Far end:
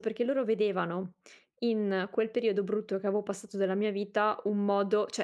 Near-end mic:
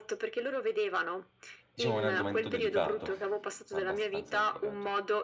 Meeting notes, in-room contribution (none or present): present